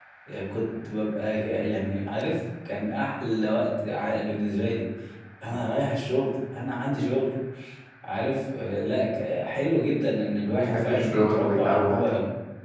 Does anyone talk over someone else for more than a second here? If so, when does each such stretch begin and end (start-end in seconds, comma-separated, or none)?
10.6-12.1